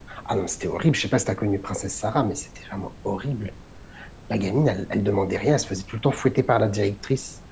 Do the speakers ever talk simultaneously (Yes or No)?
No